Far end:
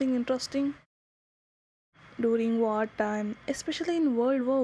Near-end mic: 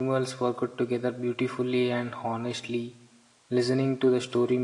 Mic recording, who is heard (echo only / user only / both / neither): user only